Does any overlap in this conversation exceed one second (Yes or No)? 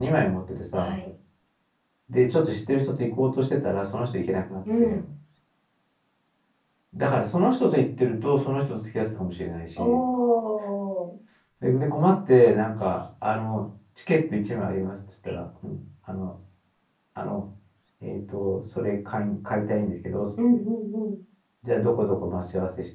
No